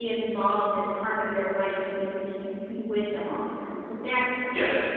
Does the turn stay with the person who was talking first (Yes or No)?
No